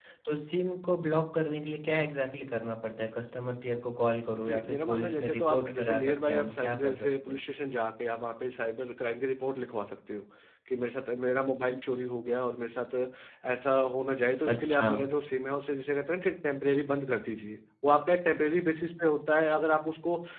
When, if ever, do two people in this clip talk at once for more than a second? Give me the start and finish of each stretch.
4.3-7.4

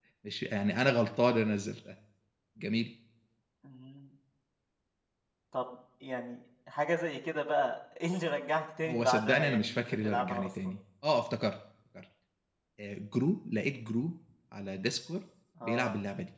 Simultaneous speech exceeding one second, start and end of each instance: 8.8-10.5

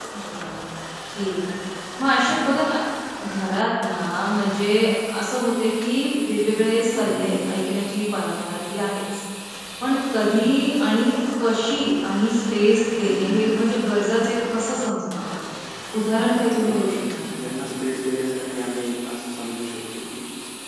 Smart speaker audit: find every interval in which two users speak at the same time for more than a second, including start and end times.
none

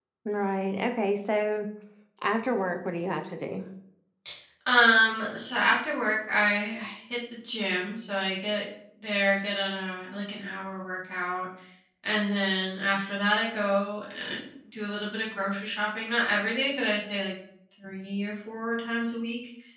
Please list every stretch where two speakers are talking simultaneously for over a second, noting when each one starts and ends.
none

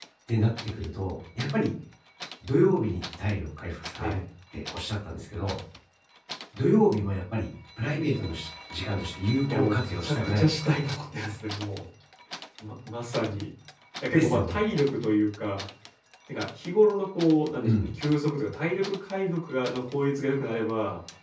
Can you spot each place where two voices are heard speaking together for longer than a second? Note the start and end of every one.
9.5-10.8

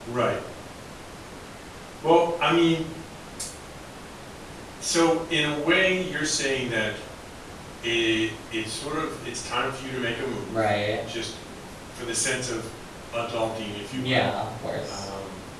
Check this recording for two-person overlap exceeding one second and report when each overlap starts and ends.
none

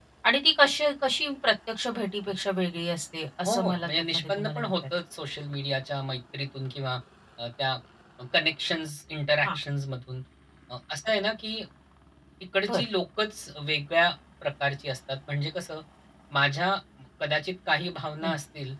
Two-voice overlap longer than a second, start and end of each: 3.5-4.7

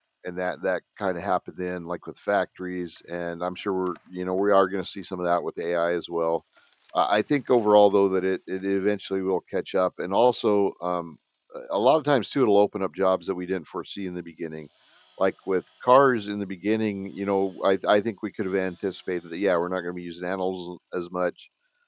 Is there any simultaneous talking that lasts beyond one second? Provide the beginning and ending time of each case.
none

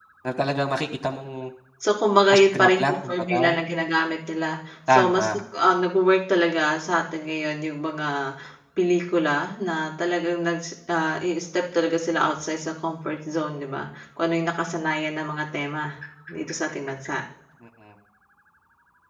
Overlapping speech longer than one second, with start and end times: 2.3-3.5

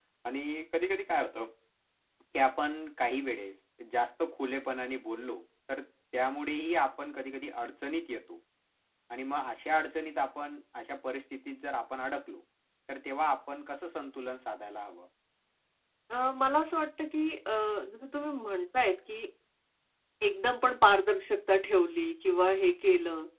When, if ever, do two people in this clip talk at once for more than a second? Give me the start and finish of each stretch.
none

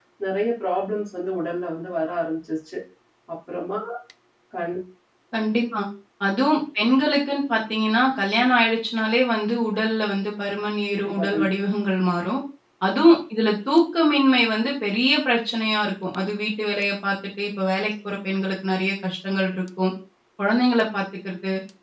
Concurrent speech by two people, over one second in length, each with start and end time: none

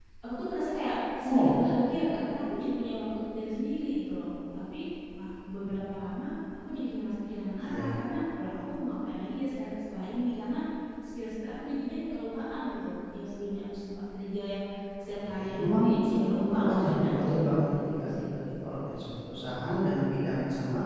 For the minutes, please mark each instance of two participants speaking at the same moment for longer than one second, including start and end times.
15.4-18.4

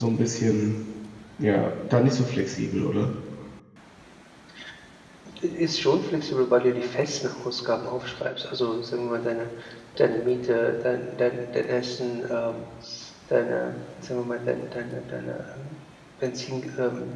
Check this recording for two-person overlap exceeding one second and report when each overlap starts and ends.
none

